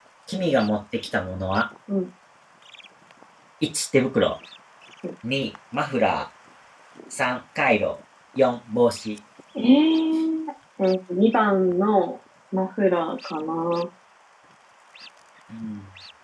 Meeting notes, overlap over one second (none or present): none